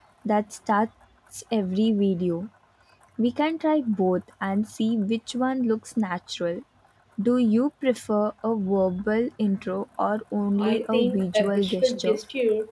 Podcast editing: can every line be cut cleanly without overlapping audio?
No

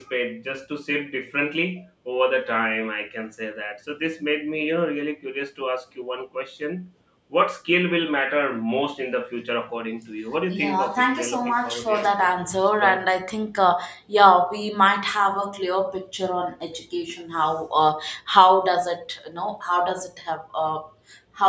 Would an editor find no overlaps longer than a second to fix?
No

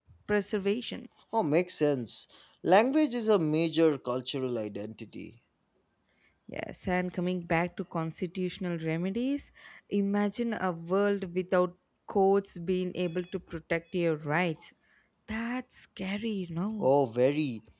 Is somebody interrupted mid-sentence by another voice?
No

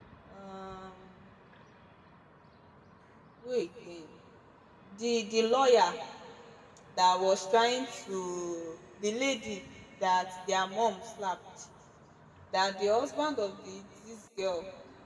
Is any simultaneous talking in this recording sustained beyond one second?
No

